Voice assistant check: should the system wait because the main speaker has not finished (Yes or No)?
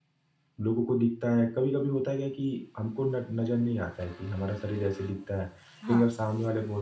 Yes